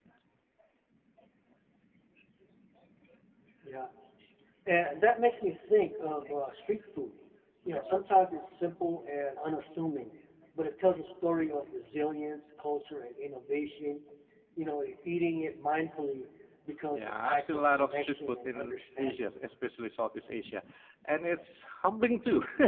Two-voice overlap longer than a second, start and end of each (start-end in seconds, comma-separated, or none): 16.9-19.3